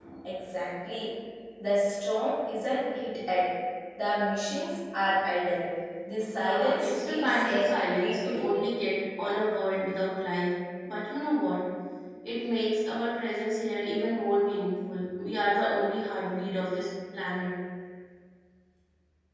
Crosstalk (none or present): present